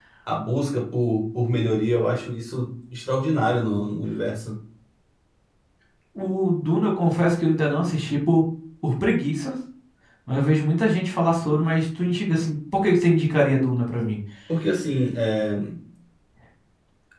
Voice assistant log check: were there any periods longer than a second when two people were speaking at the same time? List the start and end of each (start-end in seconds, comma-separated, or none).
none